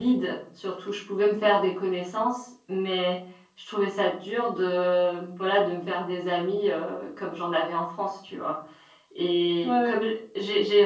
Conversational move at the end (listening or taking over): listening